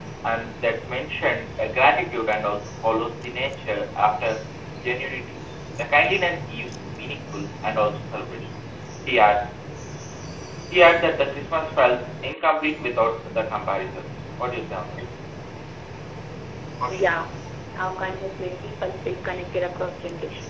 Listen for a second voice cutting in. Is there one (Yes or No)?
No